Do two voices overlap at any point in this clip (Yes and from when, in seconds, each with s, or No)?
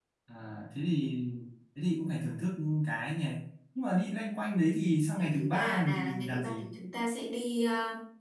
Yes, from 5.2 s